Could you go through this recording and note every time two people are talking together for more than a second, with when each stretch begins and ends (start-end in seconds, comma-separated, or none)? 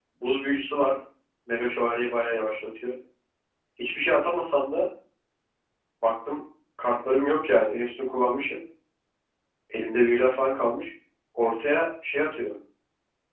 none